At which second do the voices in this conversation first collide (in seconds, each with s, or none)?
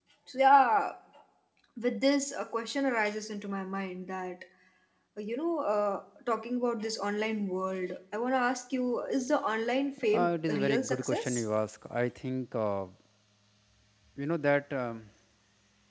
10.1 s